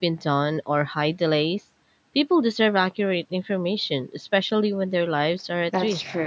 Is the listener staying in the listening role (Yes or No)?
No